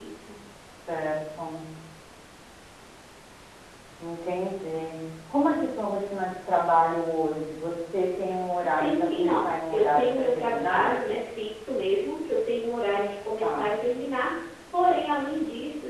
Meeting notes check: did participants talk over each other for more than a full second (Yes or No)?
Yes